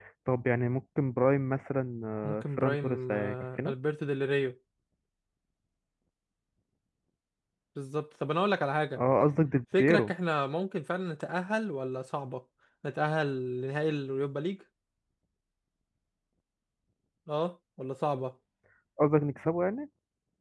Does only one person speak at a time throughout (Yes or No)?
No